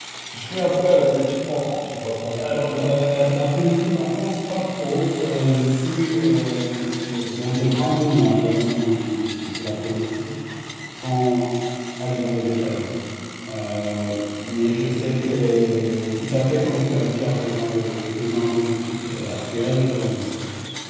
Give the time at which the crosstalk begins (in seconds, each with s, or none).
none